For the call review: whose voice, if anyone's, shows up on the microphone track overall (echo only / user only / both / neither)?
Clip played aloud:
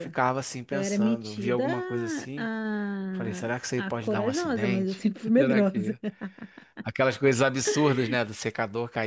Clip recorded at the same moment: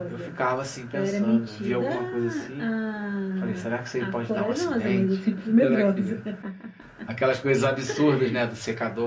echo only